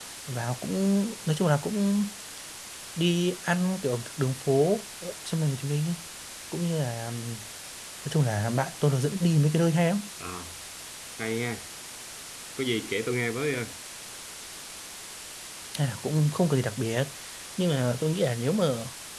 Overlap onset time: none

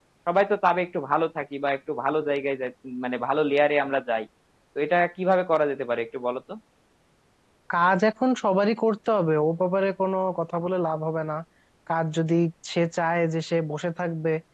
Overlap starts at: none

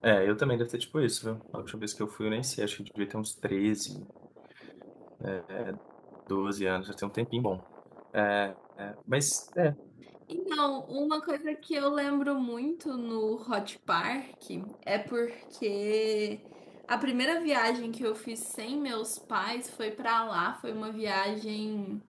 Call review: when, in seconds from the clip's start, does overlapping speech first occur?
none

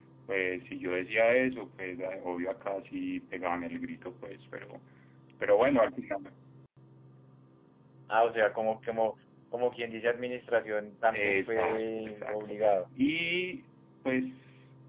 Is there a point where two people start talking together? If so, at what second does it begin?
11 s

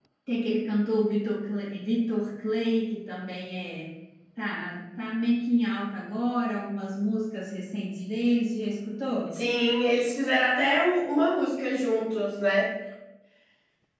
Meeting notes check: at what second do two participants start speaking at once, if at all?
none

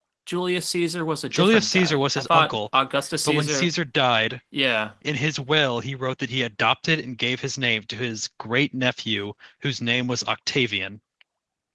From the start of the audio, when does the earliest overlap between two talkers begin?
1 s

